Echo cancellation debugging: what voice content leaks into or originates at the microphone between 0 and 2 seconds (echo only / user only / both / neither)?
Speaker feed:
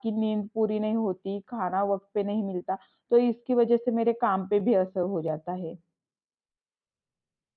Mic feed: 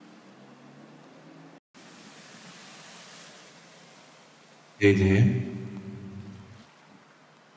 neither